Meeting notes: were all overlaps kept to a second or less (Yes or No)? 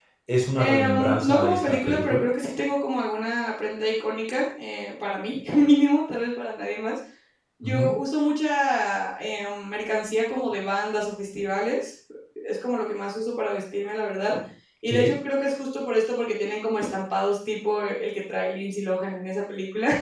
No